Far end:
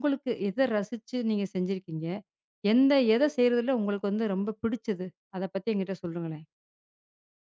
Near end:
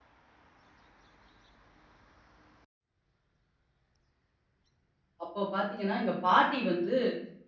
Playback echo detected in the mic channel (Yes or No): No